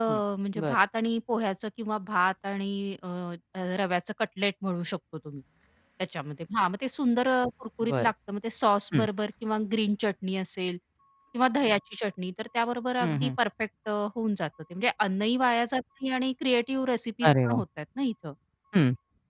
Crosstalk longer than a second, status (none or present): none